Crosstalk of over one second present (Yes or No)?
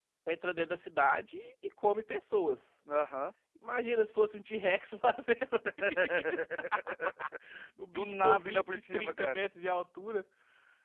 Yes